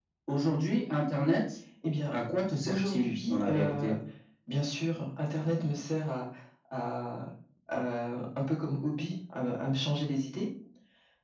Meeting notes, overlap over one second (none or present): present